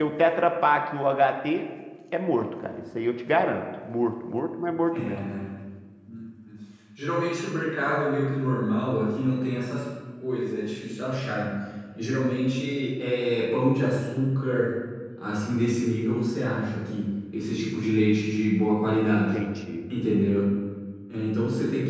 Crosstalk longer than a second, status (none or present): none